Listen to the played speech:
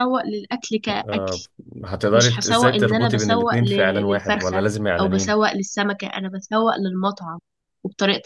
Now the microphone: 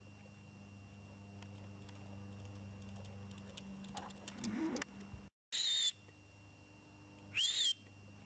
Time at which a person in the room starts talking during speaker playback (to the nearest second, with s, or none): none